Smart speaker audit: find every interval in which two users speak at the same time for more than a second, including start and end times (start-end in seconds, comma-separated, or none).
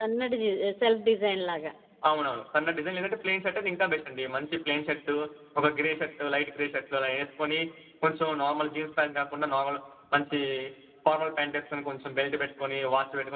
none